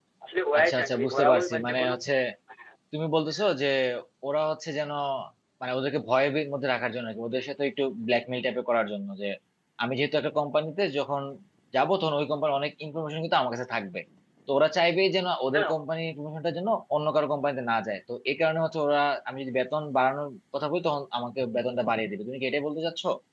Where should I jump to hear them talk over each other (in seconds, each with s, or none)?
0.6 s